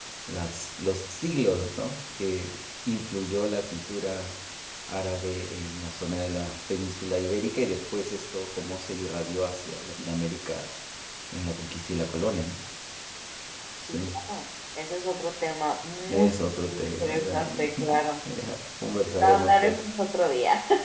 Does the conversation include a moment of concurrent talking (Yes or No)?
Yes